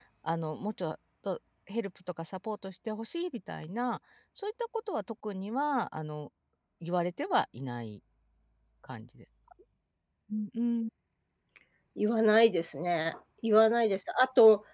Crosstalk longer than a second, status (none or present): none